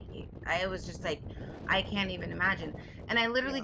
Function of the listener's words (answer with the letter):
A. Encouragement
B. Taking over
A